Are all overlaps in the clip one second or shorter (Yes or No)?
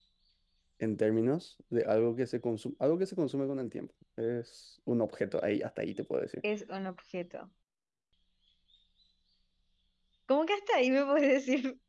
Yes